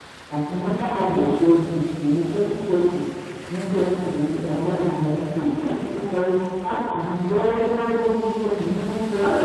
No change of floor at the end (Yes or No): No